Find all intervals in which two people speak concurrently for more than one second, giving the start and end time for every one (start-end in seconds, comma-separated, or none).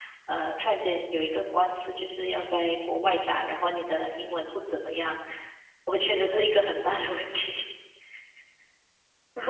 none